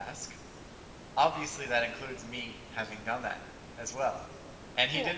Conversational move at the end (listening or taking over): listening